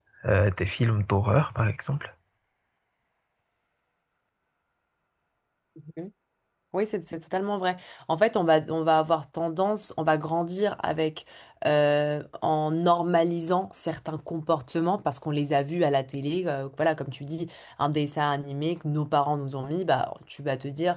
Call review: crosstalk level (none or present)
none